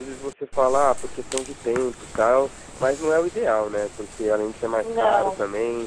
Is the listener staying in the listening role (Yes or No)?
Yes